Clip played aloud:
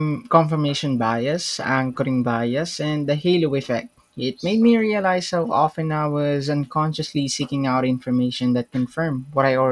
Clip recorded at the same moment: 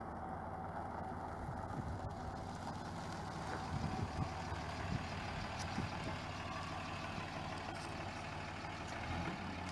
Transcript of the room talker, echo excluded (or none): none